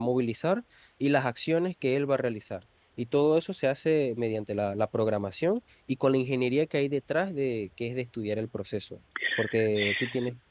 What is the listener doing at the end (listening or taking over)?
taking over